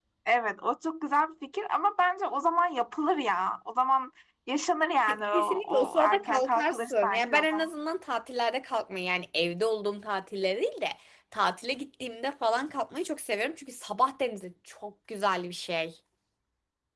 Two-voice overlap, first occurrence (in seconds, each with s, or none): 5.1 s